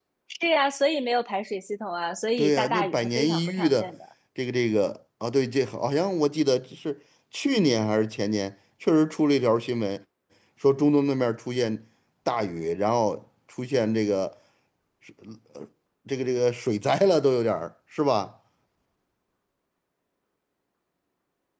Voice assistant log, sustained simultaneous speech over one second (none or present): present